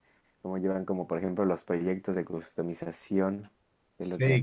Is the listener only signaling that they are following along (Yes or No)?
No